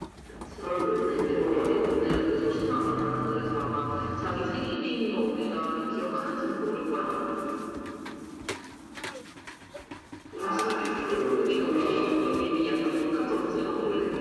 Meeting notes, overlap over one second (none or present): present